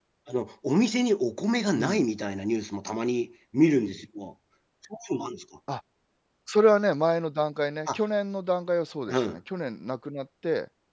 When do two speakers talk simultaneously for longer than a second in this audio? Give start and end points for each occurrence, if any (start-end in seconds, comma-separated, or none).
none